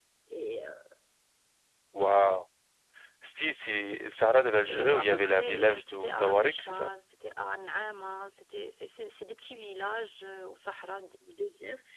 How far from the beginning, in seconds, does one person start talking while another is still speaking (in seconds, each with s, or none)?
4.7 s